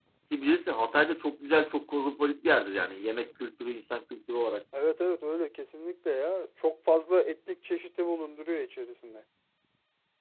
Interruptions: none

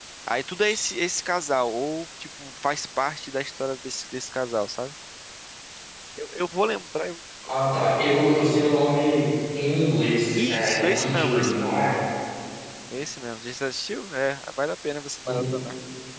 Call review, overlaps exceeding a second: present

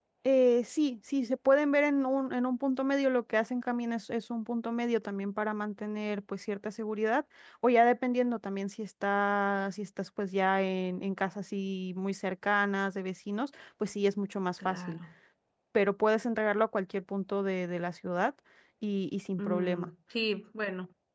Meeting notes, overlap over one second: none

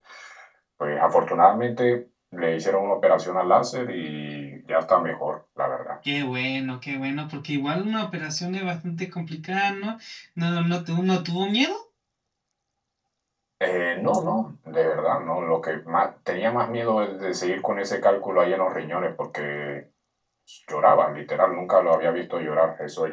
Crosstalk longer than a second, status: none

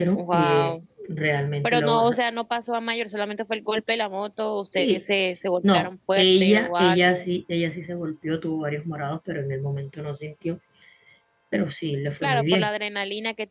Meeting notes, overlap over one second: present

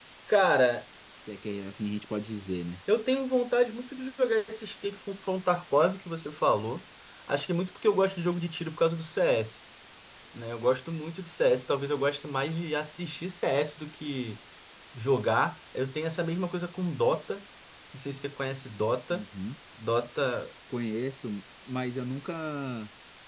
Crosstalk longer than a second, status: none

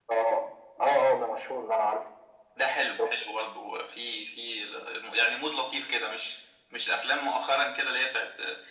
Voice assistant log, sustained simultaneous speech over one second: none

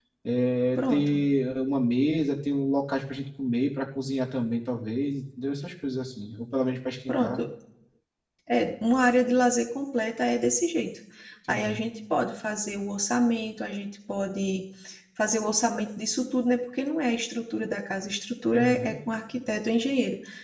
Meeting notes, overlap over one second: none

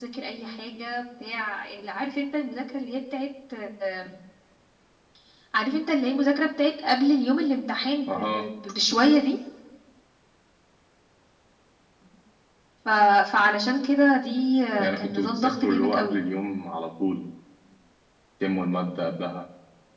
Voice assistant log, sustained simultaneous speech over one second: present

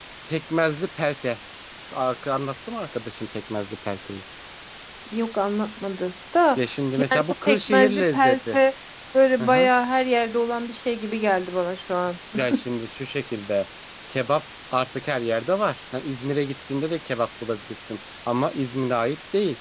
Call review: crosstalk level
present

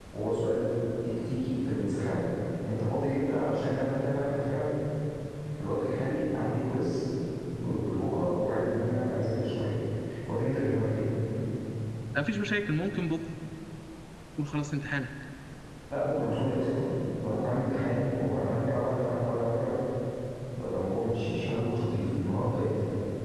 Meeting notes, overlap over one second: none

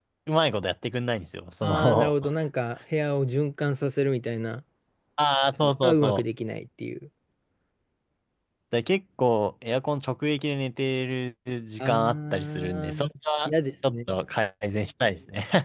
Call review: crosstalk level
present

